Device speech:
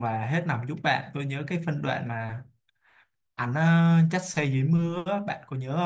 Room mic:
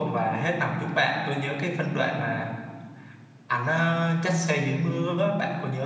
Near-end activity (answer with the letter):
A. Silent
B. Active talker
A